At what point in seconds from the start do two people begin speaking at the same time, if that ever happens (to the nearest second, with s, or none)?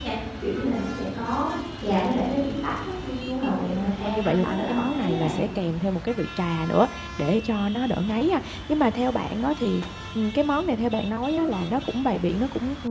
4 s